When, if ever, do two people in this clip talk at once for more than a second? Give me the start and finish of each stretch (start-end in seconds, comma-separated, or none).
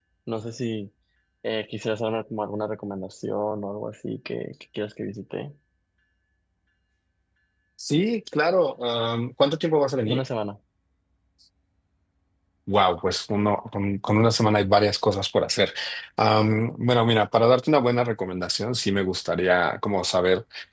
none